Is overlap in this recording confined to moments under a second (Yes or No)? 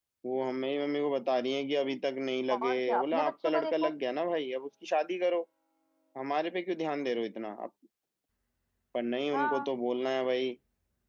No